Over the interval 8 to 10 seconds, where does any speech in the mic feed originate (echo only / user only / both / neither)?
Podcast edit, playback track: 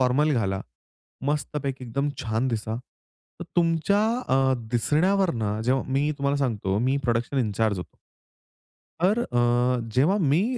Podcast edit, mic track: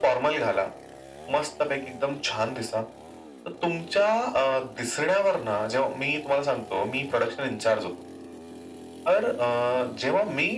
echo only